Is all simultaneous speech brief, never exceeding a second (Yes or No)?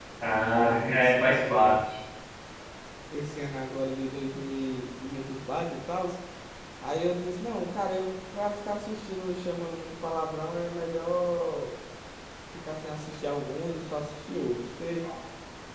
No